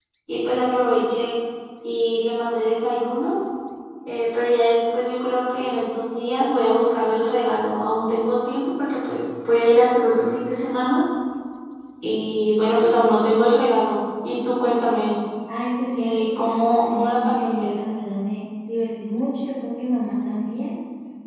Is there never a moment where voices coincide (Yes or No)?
No